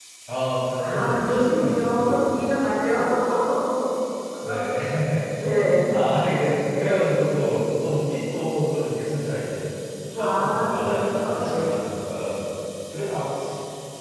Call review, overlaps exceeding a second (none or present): present